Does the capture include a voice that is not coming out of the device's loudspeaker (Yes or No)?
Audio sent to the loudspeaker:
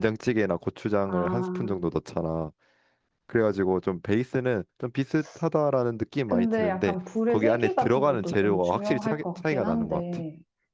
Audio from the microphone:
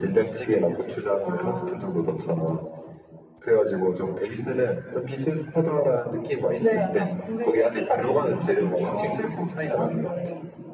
No